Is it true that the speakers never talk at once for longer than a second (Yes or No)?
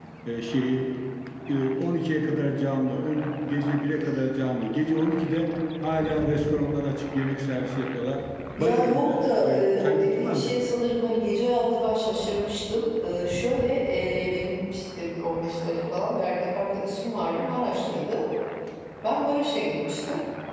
No